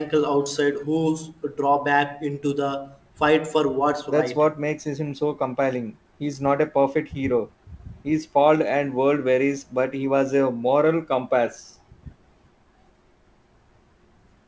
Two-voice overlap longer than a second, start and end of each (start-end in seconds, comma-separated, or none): none